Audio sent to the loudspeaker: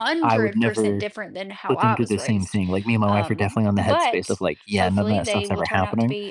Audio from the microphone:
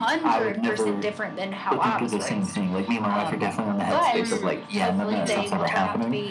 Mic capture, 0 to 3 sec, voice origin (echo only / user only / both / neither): echo only